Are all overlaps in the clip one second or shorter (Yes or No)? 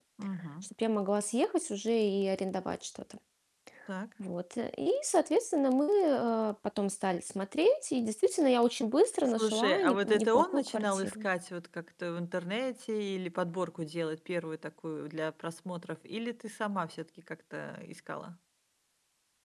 No